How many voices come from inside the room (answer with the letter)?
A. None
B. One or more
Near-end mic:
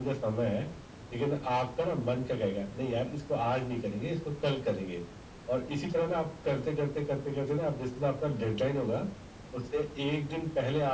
A